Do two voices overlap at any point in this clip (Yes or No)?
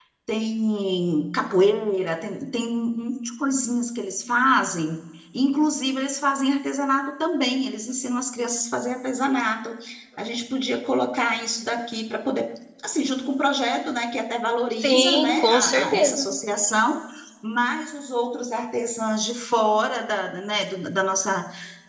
Yes